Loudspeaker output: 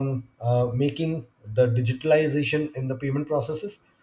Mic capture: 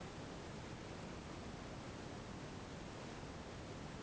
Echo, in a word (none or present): none